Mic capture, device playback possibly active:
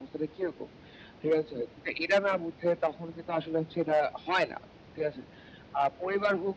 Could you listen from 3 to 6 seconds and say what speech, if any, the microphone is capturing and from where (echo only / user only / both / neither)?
echo only